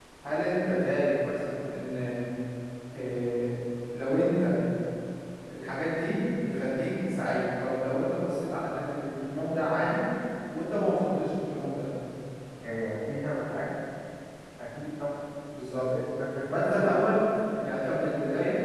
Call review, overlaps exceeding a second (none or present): none